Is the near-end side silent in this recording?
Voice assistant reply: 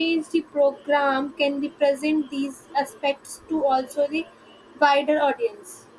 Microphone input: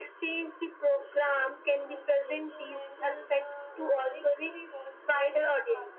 No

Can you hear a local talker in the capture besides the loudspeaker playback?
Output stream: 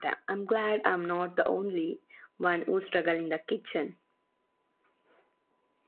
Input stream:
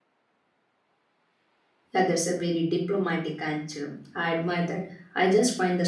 Yes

